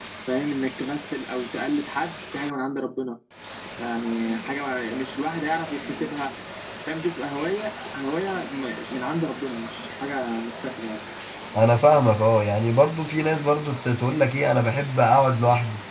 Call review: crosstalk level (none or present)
none